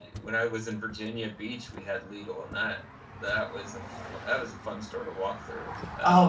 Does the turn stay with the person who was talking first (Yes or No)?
No